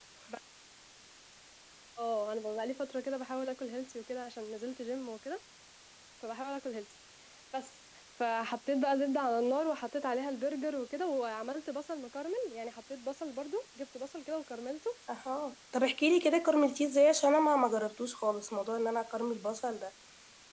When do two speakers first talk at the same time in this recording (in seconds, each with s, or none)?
none